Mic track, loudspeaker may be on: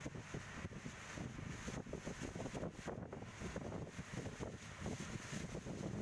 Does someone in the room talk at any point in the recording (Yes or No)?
No